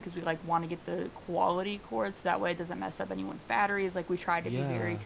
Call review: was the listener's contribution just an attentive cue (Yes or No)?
No